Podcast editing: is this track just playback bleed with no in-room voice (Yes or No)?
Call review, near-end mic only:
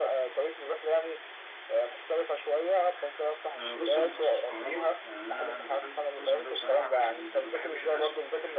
No